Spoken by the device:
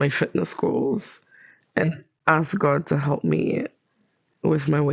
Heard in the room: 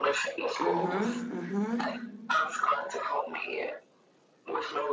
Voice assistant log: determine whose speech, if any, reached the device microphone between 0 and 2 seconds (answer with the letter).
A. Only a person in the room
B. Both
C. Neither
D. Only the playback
B